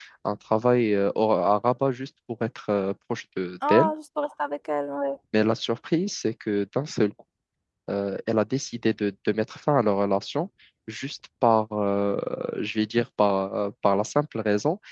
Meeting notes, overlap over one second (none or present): none